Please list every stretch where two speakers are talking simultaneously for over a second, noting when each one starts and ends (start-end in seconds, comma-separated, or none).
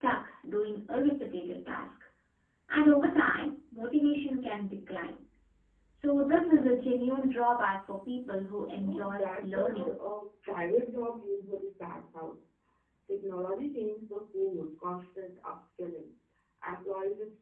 8.7-9.9